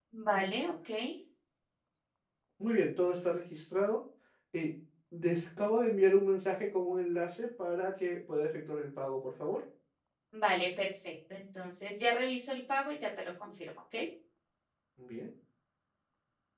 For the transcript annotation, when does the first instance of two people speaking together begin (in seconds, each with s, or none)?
none